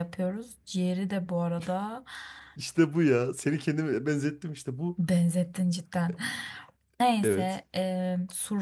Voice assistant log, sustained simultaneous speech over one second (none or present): none